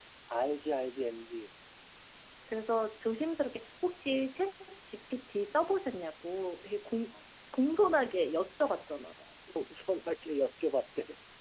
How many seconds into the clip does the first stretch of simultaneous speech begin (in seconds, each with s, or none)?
none